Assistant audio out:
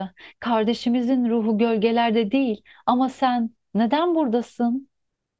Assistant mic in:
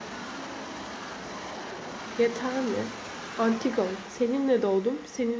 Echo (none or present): none